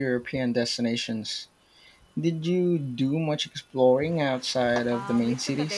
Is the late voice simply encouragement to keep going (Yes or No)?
No